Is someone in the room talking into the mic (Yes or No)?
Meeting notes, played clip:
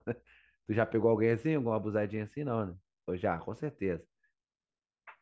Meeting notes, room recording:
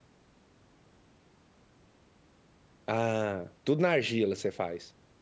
Yes